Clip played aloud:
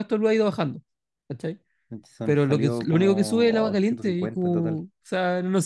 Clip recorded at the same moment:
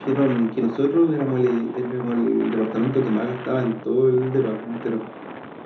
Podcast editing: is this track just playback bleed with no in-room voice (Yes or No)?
No